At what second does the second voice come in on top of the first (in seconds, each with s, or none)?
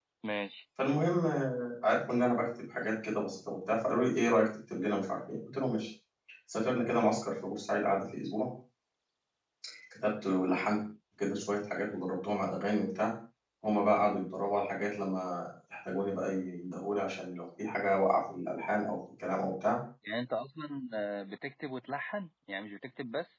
none